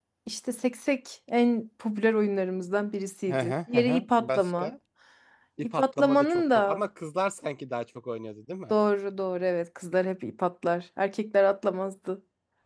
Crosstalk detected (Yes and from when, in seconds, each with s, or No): Yes, from 3.3 s